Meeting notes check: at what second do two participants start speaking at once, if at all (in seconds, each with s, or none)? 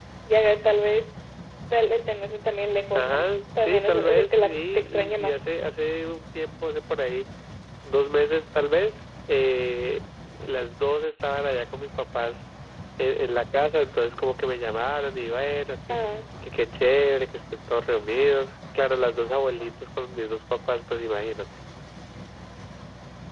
2.9 s